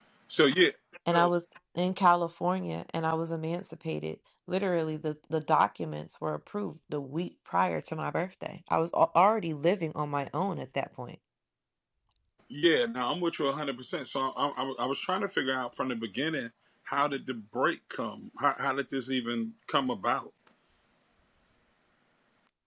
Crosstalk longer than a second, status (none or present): none